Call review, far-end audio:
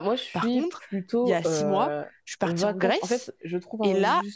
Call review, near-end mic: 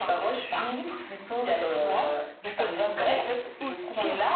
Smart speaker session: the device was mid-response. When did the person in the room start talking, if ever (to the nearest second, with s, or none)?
2 s